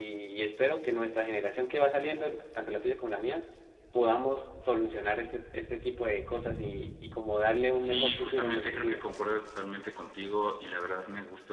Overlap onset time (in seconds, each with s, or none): 7.7 s